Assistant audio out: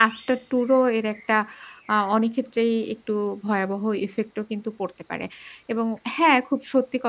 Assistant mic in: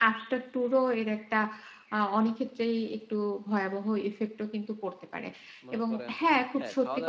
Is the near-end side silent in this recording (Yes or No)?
No